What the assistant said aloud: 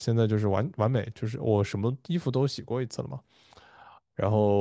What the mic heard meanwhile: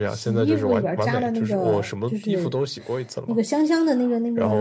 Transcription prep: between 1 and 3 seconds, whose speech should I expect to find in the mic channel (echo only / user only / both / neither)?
both